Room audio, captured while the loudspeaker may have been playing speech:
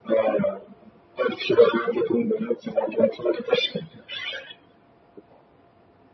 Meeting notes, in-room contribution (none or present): none